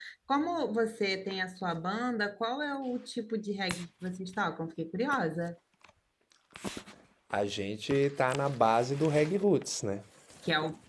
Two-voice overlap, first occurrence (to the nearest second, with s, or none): none